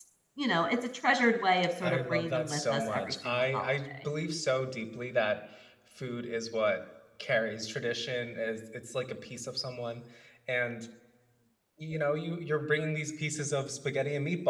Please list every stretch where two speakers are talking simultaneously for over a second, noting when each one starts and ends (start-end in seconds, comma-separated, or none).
1.8-4.1